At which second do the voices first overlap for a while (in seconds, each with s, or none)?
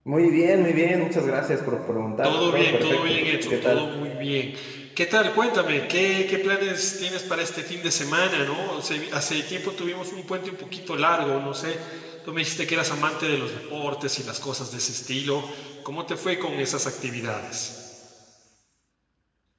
2.2 s